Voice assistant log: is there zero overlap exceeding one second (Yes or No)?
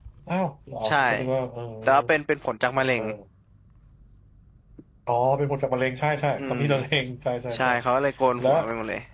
Yes